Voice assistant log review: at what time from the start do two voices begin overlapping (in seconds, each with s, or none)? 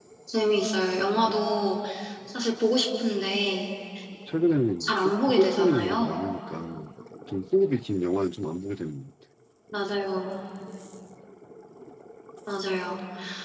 4.8 s